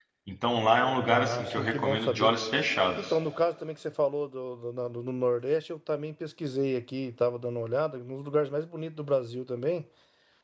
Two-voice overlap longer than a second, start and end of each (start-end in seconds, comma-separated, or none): 1.1-2.3